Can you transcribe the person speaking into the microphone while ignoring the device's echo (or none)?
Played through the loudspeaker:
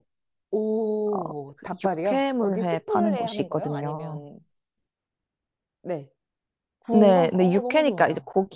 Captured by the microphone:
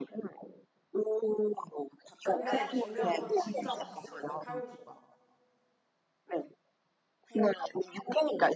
아, 근데 중요한 건 진짜 맛있어요. 그 칼국수가.